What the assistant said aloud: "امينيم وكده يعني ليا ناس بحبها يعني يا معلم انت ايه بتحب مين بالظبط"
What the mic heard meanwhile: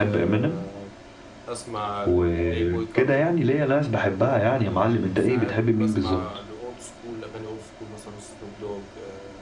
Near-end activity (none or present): present